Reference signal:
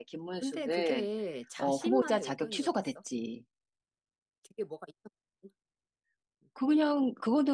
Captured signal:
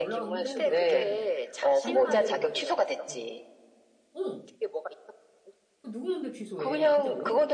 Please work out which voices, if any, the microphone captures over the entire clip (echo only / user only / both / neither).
both